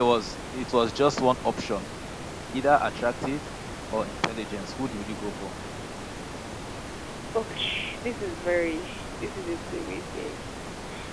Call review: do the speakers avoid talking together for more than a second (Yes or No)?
Yes